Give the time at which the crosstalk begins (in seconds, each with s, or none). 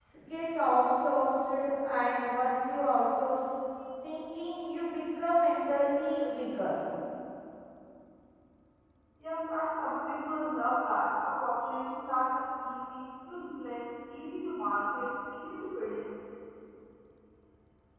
none